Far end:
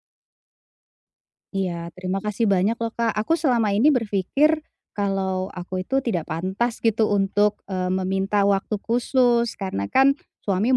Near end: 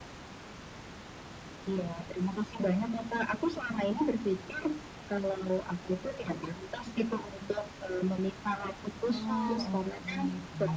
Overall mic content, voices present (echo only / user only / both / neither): both